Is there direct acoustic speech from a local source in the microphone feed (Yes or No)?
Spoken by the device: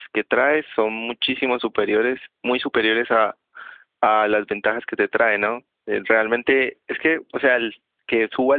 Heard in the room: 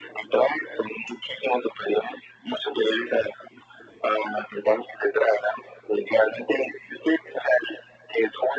No